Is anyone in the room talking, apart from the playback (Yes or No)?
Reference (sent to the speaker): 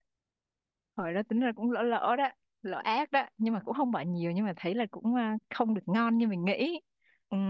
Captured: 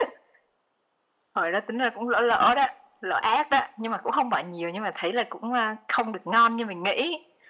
No